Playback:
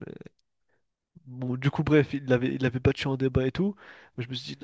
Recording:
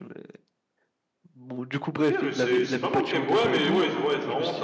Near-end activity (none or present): present